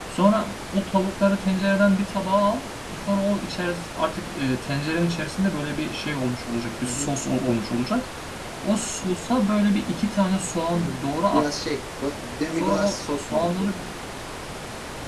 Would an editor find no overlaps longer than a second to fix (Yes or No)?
No